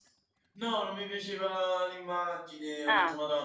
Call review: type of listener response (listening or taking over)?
listening